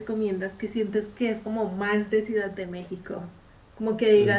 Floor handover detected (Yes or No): No